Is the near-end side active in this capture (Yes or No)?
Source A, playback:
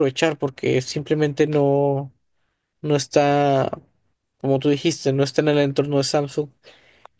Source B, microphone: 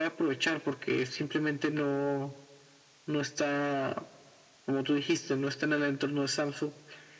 No